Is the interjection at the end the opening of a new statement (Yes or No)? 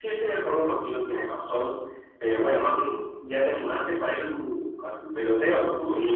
Yes